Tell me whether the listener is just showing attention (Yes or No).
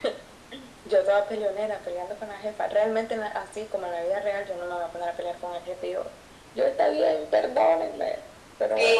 No